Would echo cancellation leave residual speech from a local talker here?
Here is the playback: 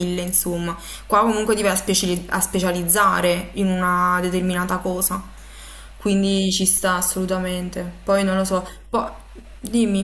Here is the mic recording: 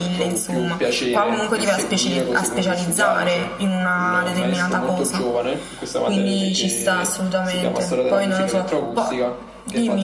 Yes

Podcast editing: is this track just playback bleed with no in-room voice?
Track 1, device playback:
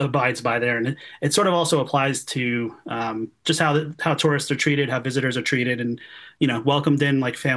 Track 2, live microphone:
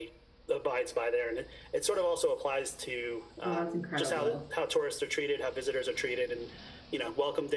No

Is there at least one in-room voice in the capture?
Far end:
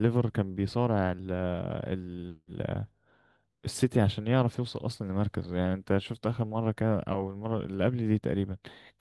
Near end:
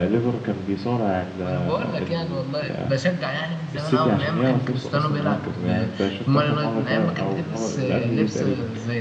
Yes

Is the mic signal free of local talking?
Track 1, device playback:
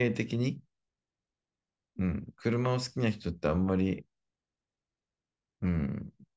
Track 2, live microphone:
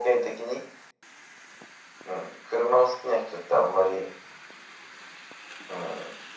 Yes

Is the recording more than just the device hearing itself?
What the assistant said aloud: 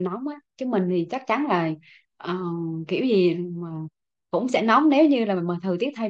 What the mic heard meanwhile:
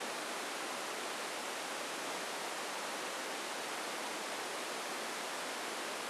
No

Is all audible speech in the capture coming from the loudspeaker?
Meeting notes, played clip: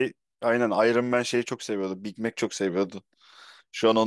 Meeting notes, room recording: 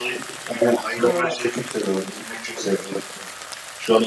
No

